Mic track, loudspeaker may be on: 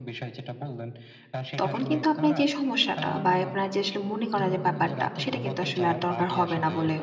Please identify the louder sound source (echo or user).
user